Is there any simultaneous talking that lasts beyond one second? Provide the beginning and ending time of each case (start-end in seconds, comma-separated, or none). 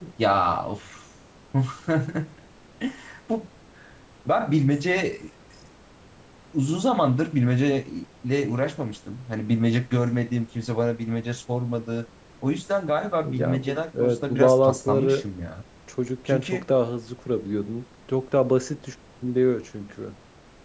13.2-15.3